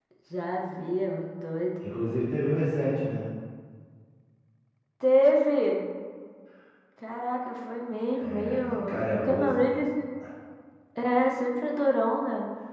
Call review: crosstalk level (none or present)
present